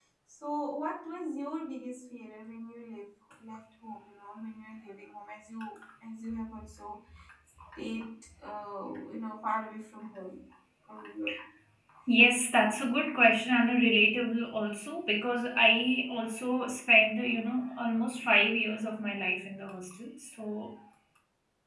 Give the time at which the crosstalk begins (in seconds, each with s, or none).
none